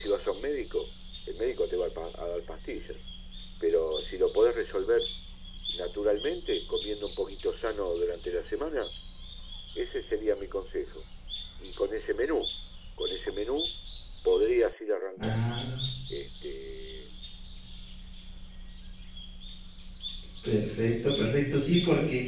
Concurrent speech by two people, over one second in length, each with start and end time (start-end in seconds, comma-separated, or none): none